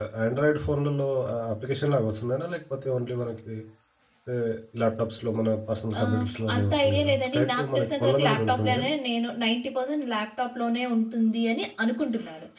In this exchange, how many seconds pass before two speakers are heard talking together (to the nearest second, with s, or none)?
6 s